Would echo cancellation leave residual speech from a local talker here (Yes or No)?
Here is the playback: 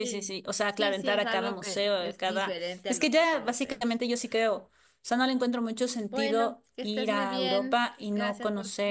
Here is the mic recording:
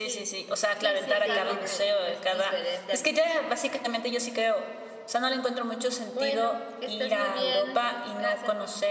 Yes